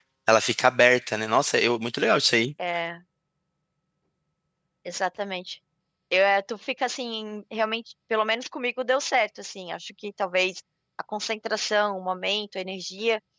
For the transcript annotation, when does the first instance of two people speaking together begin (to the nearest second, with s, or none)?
none